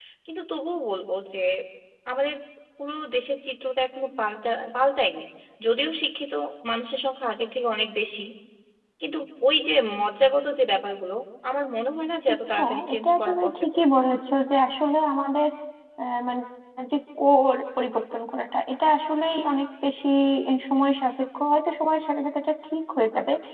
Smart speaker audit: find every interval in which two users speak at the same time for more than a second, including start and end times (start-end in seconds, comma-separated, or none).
12.6-13.8